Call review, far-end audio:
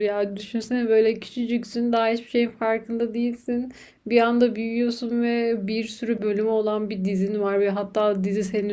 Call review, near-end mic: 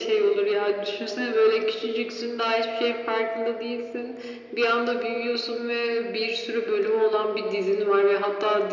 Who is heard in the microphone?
echo only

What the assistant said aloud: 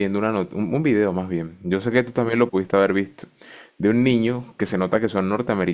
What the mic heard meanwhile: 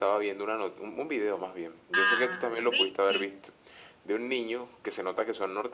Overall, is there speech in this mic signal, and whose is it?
both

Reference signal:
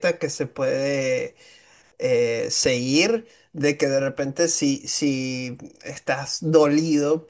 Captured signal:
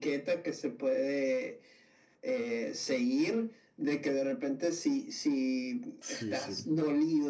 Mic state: both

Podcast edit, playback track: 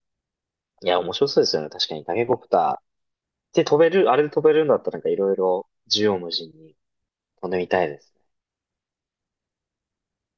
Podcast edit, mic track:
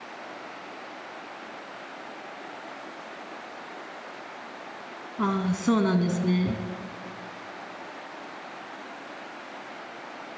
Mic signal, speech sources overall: user only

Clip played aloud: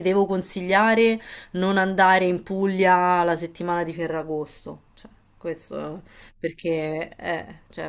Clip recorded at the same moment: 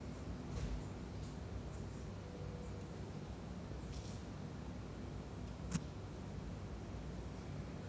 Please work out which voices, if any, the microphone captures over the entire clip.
neither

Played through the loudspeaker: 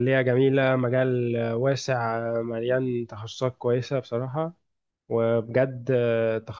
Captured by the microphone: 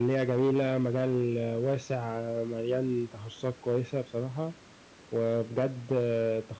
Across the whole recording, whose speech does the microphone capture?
echo only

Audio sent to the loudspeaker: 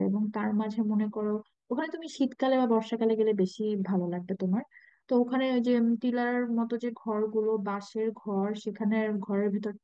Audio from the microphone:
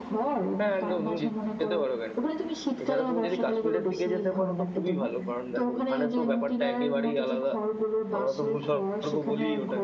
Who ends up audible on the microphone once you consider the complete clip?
both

